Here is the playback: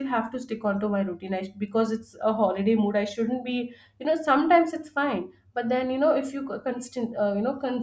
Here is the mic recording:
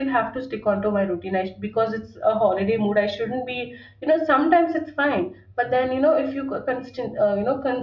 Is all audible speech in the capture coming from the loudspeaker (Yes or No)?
Yes